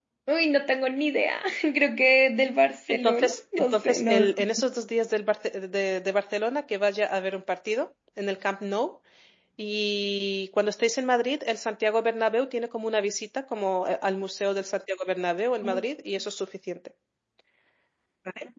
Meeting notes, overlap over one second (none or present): present